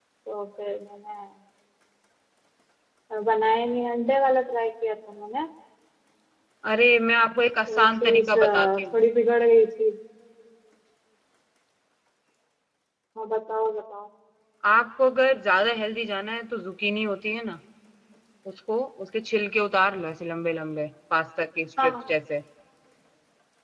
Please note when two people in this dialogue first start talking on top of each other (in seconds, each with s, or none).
7.7 s